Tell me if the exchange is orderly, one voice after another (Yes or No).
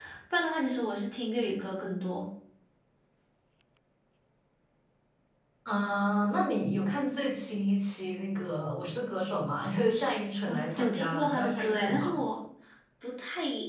No